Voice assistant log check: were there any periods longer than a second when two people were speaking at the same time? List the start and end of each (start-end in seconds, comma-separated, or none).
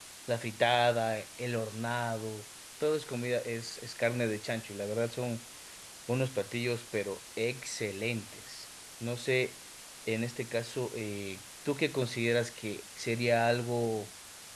none